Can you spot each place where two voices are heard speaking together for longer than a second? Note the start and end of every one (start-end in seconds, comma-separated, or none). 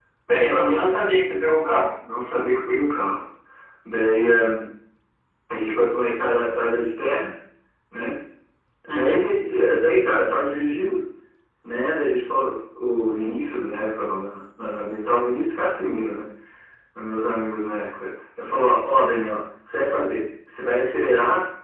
none